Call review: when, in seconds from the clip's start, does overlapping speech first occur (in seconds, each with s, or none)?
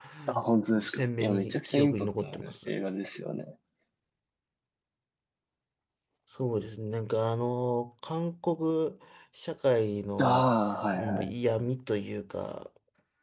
0.8 s